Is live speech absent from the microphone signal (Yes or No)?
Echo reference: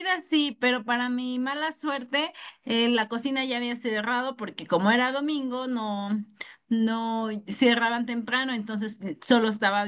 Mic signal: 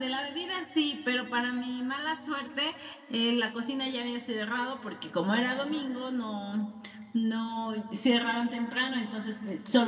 Yes